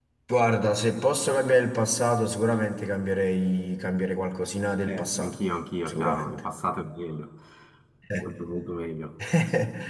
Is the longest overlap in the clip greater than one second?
No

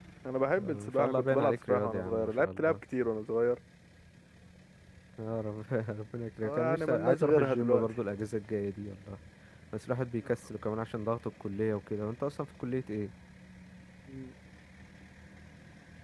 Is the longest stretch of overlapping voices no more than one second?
No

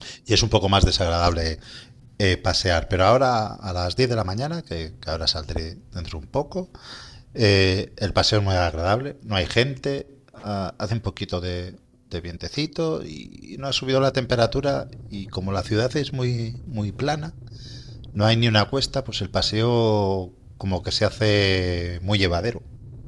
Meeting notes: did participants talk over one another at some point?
No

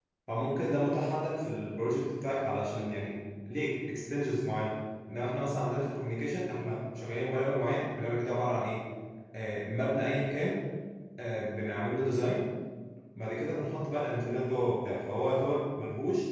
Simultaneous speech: No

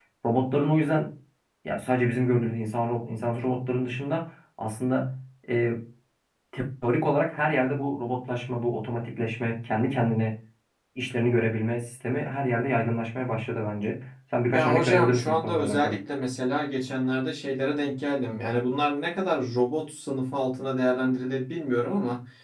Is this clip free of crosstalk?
No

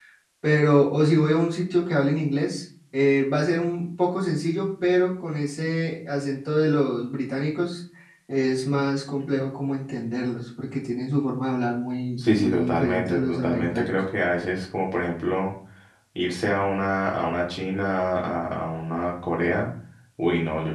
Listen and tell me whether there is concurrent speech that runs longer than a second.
Yes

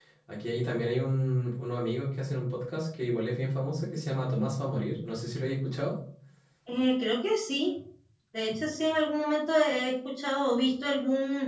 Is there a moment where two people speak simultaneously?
No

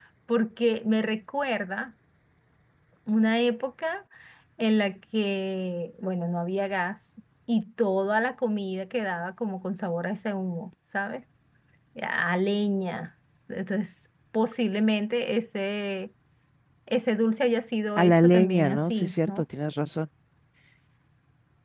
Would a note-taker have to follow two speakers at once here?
Yes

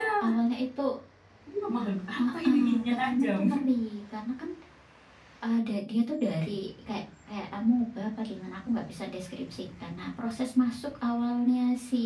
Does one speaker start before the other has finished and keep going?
Yes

